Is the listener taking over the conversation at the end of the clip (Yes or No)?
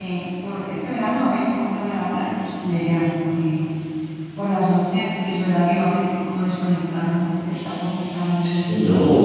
Yes